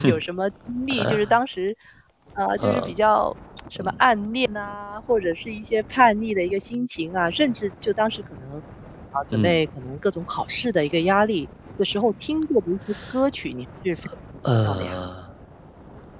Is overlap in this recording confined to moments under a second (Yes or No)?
Yes